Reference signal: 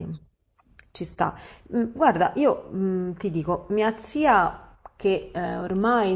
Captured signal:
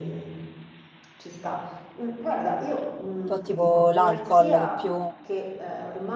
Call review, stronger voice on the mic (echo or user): user